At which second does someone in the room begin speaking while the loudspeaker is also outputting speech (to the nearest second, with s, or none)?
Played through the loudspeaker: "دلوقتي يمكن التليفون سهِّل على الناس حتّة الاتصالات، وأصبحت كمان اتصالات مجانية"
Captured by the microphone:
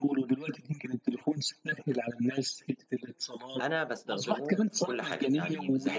4 s